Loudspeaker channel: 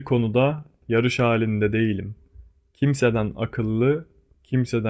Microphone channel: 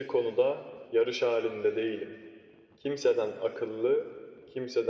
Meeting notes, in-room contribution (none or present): none